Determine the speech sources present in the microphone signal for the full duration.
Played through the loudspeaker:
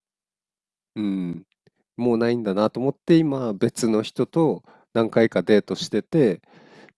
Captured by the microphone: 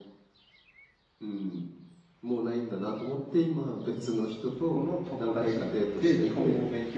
both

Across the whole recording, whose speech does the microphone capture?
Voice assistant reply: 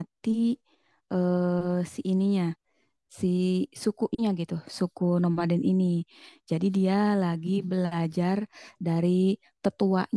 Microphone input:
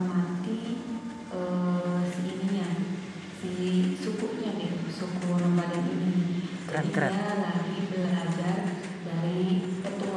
both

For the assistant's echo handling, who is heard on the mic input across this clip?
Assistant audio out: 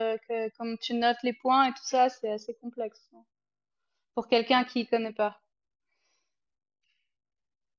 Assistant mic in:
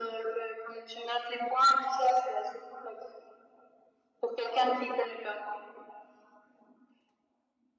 echo only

